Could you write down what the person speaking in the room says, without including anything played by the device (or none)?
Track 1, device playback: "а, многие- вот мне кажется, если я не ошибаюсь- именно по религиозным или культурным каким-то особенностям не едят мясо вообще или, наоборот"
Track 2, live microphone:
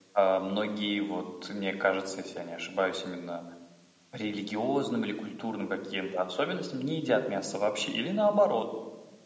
none